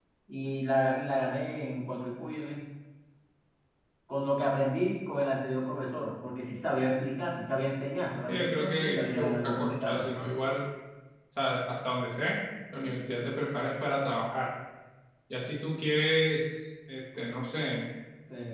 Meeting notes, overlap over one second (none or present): present